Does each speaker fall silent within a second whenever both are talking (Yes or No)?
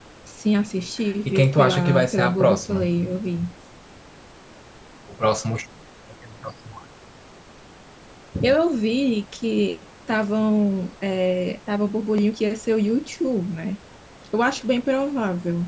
No